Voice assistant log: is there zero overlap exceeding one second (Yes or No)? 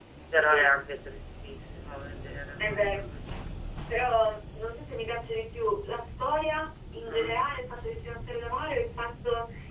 Yes